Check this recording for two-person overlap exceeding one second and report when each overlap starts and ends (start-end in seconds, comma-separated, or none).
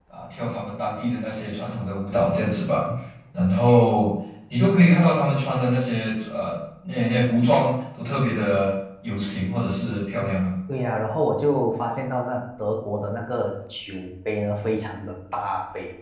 none